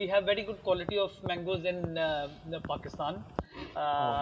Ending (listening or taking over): listening